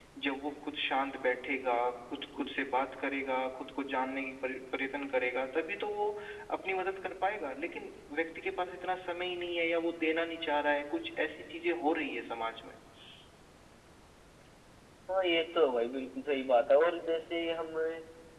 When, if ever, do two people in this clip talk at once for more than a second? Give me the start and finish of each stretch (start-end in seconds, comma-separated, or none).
none